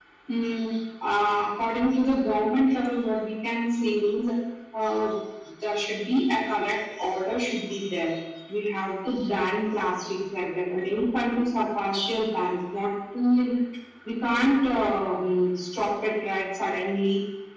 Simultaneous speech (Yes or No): No